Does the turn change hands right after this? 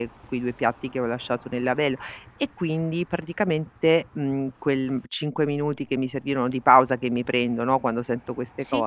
No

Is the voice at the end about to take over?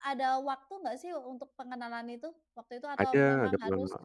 Yes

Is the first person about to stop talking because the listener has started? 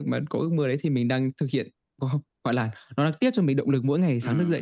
Yes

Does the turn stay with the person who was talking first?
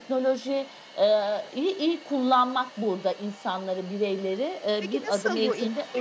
No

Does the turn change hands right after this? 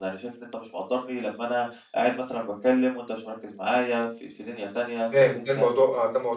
Yes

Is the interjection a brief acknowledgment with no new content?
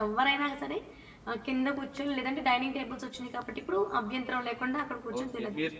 No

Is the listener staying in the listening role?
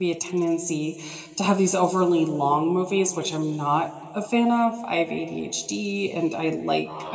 Yes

